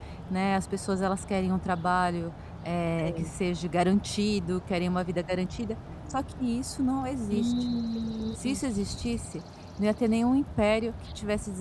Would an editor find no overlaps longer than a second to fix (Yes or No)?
Yes